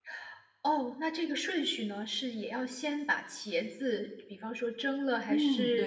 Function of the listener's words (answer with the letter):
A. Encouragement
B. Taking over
B